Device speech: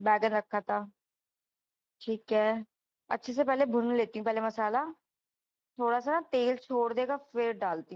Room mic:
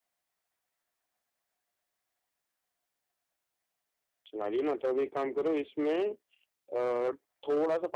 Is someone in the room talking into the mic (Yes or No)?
Yes